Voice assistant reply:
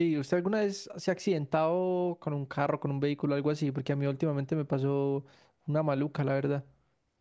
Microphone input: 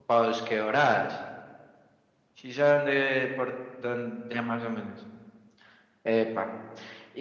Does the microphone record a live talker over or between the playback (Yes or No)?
Yes